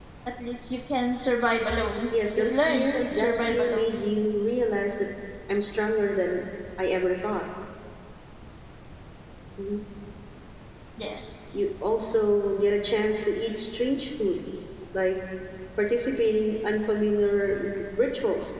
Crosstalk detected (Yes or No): Yes